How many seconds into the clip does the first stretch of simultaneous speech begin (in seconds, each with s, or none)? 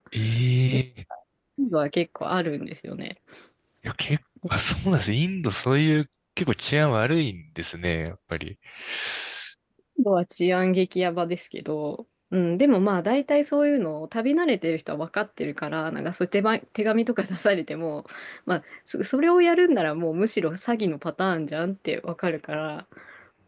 none